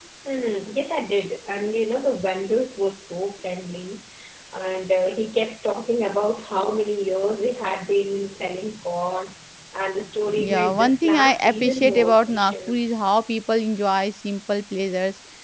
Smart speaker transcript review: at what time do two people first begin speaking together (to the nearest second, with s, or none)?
10 s